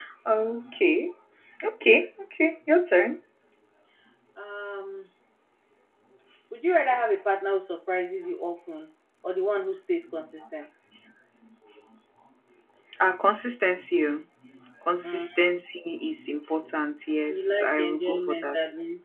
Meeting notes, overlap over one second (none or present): present